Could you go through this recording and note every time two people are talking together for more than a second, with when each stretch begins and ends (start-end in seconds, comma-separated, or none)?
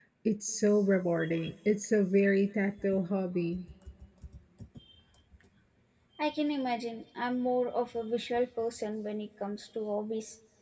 none